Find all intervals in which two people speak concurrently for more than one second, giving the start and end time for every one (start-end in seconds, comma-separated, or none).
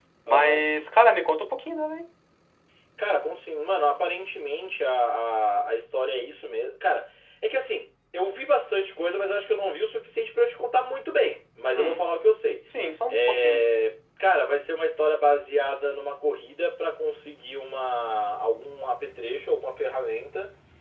none